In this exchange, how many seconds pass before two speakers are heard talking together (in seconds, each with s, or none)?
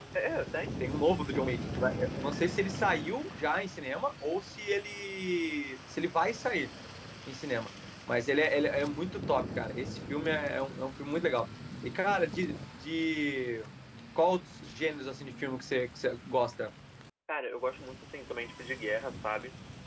none